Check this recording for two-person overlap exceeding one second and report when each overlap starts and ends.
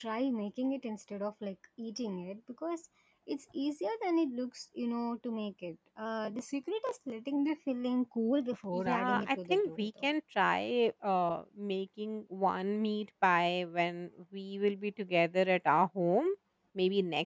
8.7-10.1

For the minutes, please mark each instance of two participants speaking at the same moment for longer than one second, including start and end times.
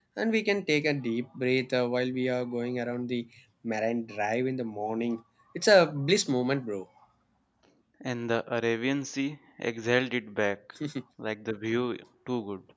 none

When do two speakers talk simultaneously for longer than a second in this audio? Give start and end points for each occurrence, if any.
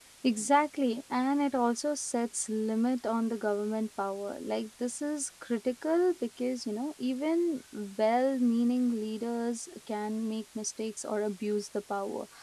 none

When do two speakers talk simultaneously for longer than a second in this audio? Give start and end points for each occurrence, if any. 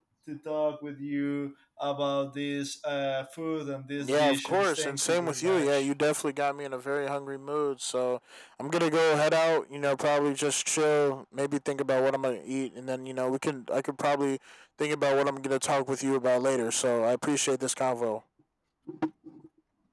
4.0-5.9

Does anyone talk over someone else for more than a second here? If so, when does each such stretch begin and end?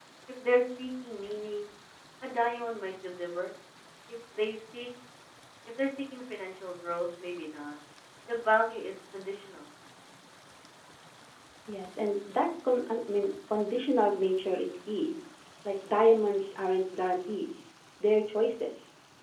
none

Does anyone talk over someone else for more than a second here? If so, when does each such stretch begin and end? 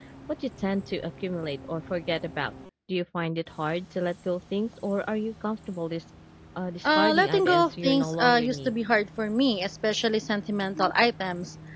6.8-8.8

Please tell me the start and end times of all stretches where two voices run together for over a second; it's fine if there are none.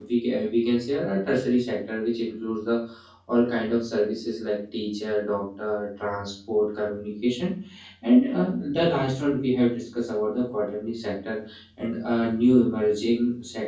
none

